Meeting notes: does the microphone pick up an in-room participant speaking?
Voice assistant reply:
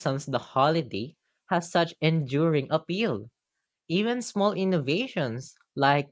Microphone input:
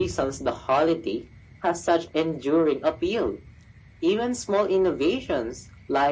No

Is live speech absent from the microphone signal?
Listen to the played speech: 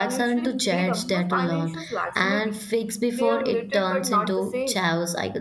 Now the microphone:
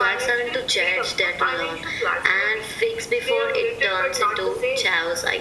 Yes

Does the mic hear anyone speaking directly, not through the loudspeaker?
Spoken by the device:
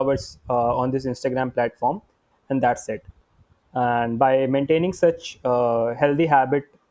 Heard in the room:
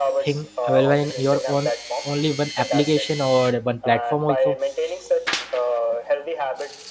Yes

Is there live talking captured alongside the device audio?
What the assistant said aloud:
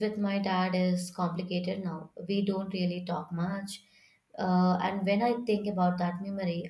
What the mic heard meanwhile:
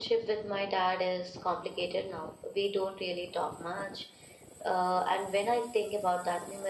No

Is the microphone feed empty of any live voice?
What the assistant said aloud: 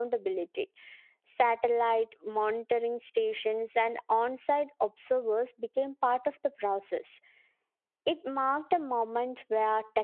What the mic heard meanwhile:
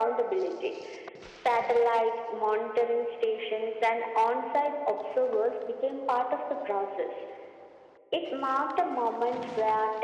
Yes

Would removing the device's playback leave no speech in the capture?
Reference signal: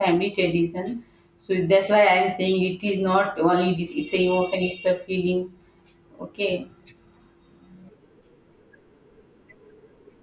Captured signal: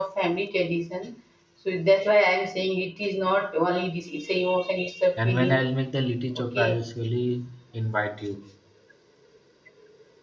No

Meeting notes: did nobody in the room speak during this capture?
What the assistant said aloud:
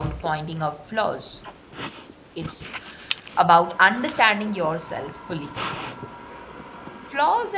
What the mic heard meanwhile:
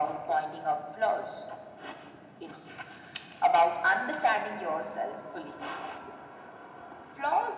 Yes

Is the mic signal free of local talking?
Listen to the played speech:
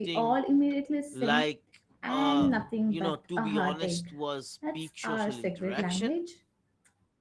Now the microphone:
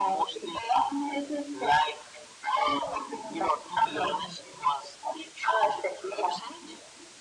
Yes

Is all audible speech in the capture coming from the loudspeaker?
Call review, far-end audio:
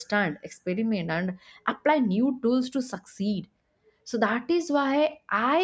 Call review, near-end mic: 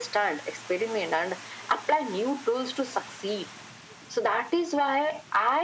Yes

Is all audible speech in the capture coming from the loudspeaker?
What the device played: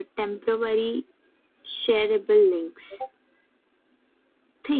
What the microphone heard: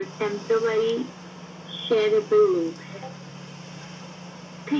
Yes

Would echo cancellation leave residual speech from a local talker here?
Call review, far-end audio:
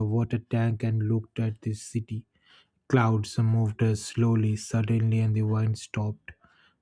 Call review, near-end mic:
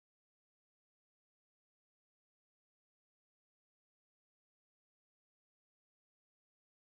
No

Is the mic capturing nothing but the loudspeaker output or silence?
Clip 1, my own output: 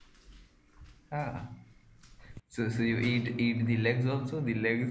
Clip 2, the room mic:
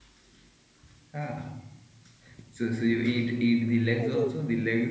No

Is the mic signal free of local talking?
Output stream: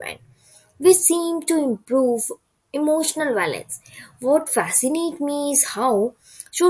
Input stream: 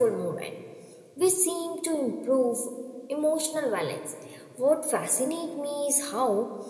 Yes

